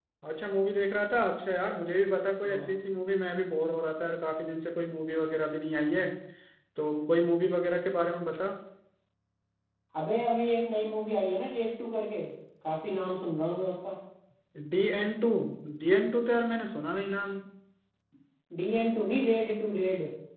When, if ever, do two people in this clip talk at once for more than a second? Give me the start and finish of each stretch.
none

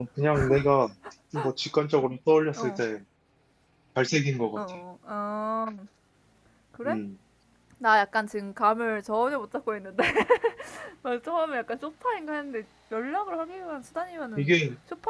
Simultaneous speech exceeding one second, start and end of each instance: none

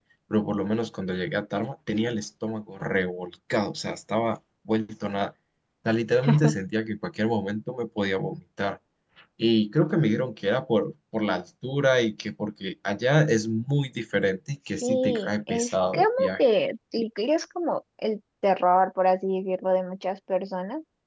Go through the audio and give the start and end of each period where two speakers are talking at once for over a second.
14.8-16.4

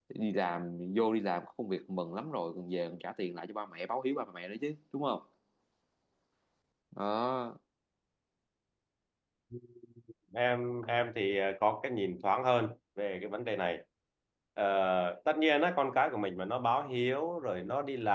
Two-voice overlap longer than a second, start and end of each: none

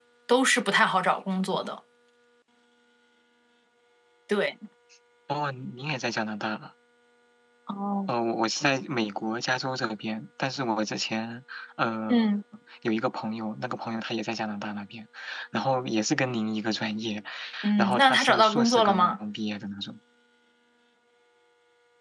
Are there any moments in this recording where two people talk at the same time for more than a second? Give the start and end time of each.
17.8-19.2

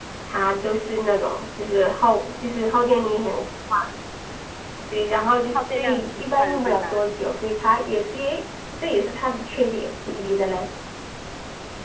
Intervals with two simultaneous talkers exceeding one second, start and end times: 5.5-7.0

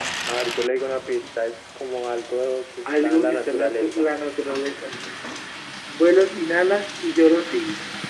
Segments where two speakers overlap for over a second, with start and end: 2.9-4.1

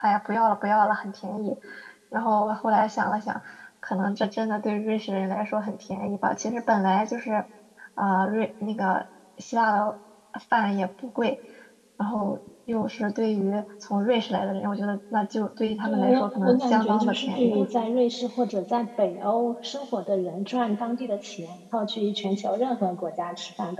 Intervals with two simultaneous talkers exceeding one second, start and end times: 15.8-17.7

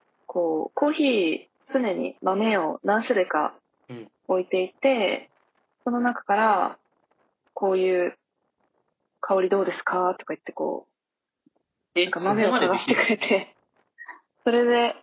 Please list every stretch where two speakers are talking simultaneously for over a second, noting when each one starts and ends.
12.1-13.3

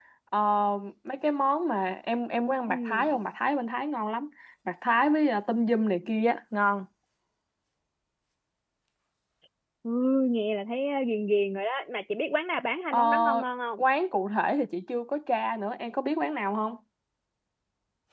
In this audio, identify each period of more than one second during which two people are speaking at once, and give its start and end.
none

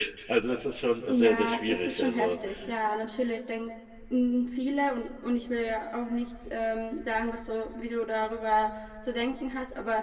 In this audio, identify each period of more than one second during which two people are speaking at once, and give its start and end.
1.1-2.3

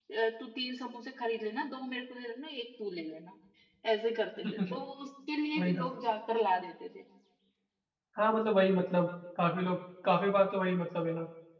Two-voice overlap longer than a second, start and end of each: none

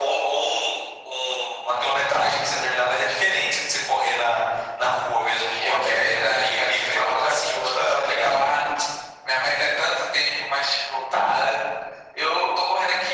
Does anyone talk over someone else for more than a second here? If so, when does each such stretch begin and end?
5.5-8.5

